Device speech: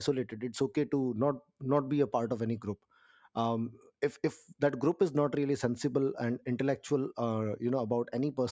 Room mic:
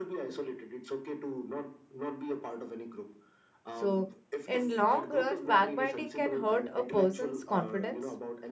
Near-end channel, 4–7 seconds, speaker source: both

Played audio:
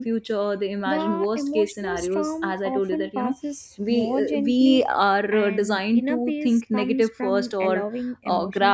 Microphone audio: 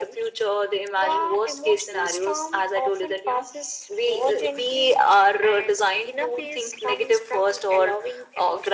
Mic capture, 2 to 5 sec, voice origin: echo only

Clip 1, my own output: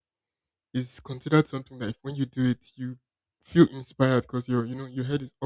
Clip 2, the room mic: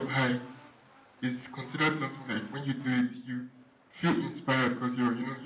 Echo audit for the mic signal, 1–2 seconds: echo only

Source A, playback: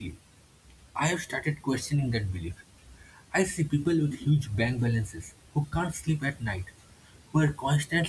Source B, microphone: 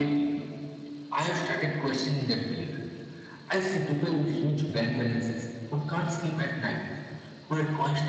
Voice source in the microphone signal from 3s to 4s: echo only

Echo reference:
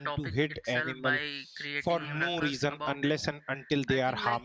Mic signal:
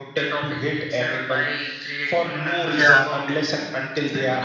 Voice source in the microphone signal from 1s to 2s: echo only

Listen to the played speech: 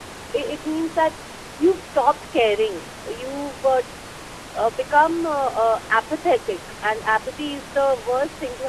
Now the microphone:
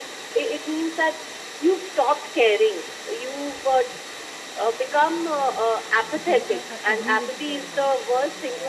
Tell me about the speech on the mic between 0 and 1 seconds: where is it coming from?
echo only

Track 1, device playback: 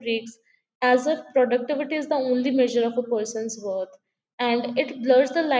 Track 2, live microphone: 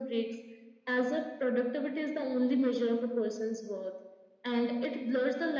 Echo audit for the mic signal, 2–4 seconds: echo only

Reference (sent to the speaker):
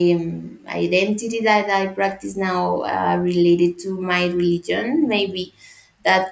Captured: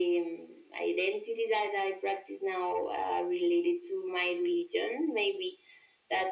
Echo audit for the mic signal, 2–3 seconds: echo only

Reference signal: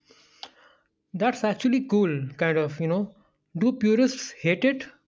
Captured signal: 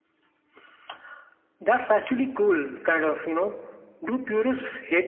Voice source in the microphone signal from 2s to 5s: echo only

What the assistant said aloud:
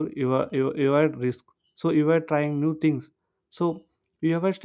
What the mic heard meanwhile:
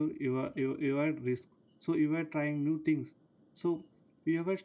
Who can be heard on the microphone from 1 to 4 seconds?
echo only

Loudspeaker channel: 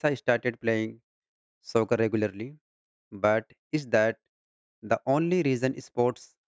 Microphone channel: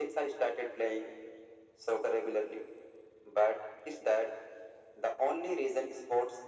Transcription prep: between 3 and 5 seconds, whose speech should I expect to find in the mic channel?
echo only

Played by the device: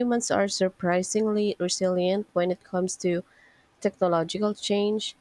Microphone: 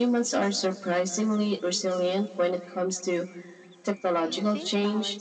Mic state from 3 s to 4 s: echo only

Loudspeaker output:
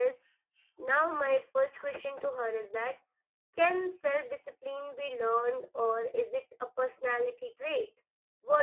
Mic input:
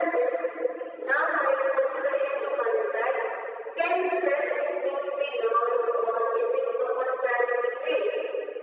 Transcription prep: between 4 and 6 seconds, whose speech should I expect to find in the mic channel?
echo only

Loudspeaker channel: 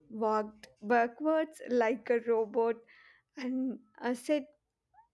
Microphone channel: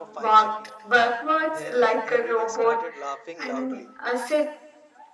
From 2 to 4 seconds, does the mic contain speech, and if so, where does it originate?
both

